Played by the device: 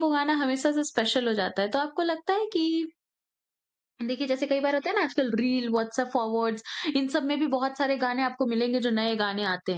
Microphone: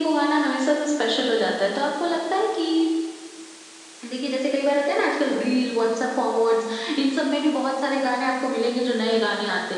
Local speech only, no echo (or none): none